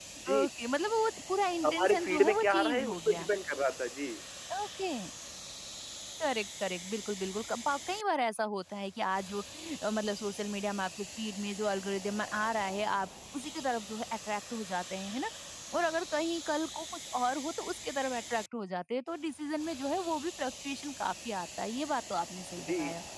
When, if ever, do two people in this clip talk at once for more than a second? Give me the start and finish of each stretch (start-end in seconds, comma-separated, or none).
1.6-3.3